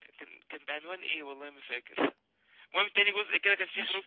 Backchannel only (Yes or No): Yes